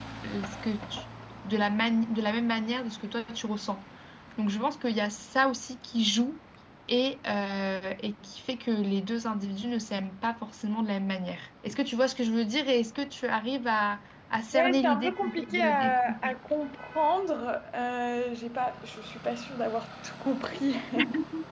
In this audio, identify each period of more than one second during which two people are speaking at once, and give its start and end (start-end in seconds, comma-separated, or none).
14.5-16.3